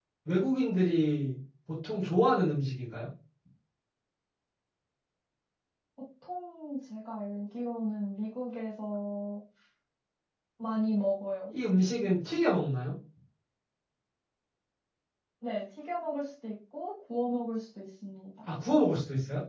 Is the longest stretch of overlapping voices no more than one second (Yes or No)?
Yes